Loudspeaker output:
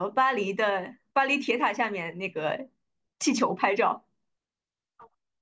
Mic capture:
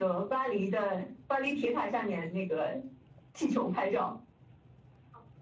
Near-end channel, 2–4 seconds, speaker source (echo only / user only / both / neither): echo only